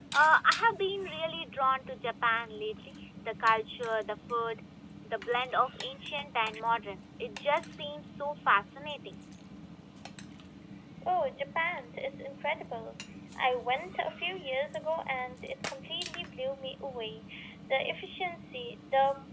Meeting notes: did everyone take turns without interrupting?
Yes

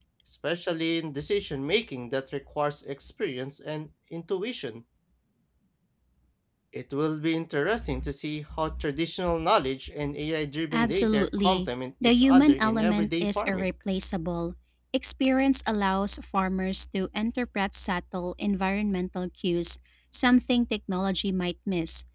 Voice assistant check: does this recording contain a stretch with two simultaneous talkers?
Yes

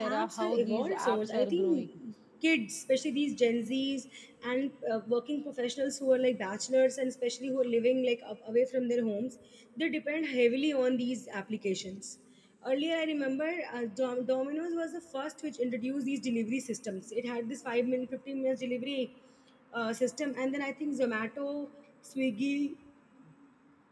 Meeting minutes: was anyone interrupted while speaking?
Yes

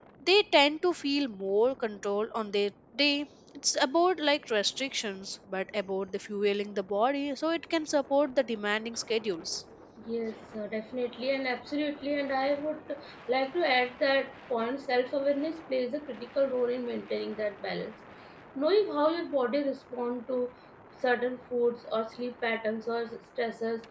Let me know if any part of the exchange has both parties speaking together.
No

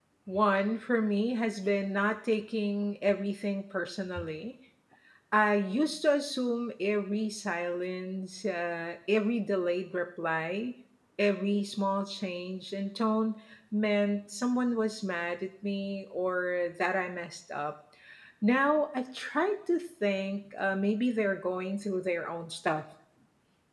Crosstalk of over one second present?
No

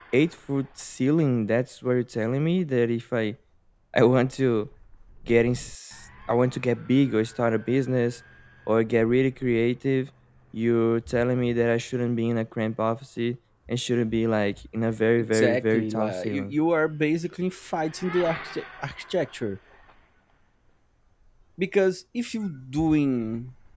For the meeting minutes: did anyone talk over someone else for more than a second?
Yes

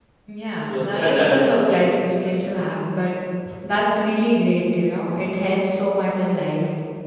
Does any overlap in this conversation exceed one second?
Yes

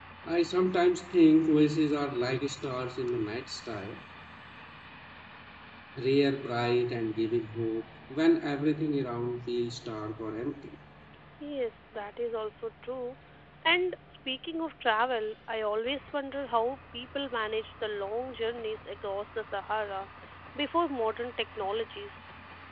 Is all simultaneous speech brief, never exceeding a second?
Yes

